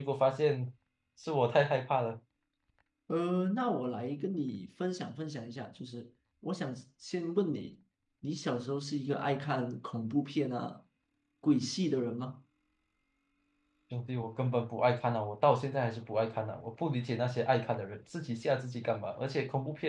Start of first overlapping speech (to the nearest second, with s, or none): none